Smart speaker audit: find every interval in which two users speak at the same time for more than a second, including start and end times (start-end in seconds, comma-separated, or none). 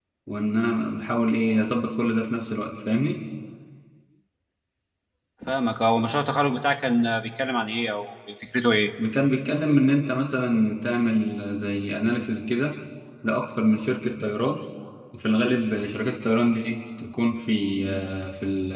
none